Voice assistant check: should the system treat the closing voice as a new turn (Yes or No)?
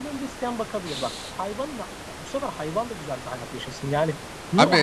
Yes